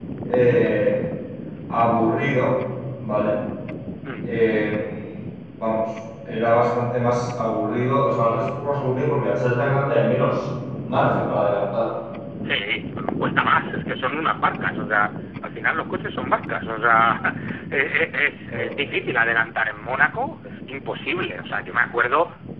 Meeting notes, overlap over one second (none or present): none